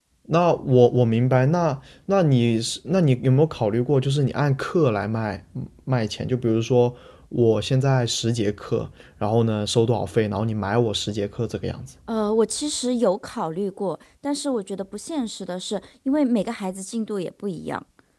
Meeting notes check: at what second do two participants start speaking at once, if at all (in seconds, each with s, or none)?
none